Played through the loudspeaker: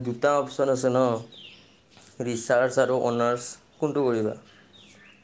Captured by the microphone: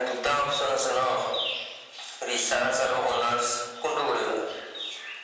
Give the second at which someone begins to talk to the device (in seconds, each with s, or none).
none